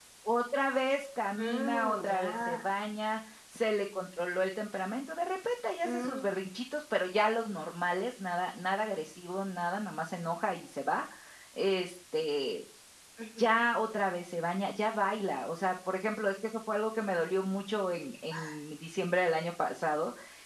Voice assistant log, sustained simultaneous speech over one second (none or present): present